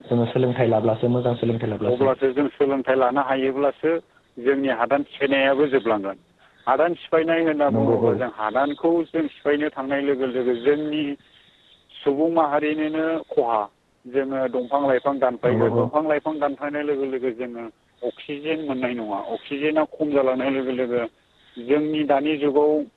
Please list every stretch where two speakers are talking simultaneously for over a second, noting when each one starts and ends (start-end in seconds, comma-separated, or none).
none